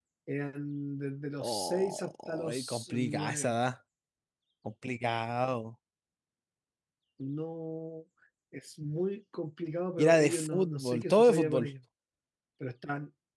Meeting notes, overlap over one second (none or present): present